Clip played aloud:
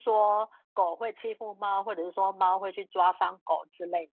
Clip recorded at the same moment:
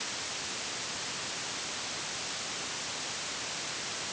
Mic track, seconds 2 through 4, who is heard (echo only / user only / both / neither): neither